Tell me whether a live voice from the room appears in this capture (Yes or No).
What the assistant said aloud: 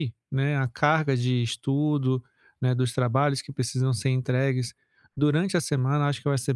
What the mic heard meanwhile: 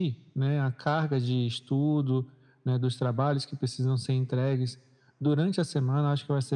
No